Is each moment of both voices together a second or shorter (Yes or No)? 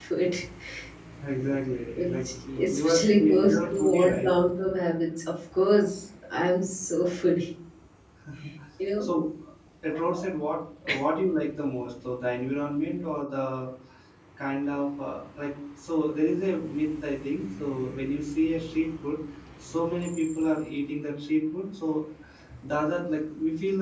No